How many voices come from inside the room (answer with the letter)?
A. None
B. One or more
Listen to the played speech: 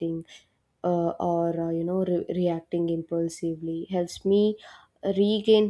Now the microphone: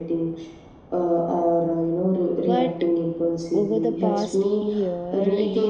B